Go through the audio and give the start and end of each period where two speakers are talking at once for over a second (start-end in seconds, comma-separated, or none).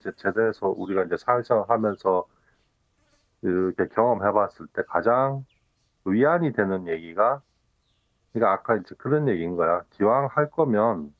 none